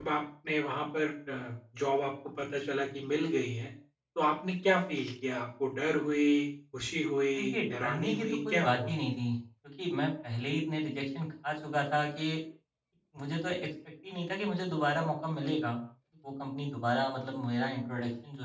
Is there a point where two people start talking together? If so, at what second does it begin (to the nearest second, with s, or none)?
7 s